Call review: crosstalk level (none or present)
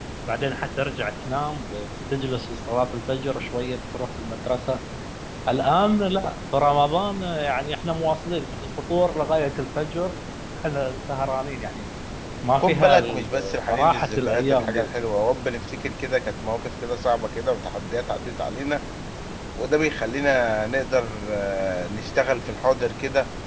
present